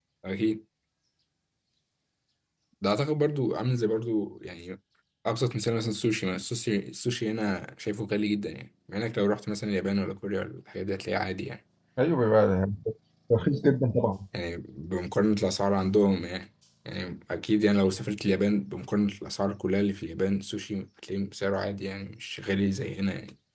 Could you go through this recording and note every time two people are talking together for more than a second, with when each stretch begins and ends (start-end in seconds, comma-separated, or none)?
none